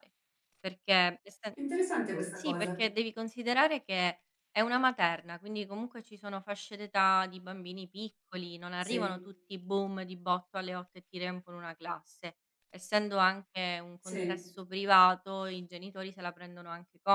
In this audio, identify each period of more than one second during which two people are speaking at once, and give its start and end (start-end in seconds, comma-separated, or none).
none